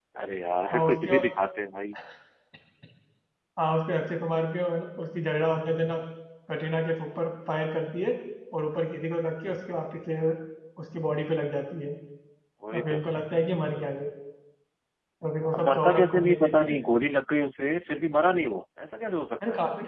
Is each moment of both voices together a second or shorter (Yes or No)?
No